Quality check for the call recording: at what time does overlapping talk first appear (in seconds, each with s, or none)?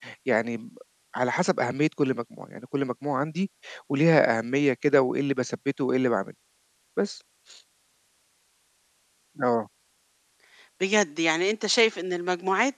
none